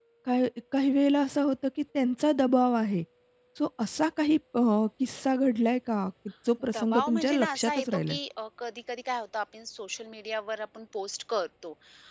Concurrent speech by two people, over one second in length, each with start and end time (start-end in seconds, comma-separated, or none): 6.7-8.2